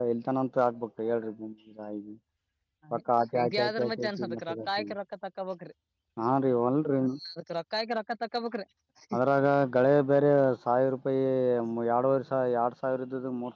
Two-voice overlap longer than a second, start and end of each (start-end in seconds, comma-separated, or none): 3.6-4.9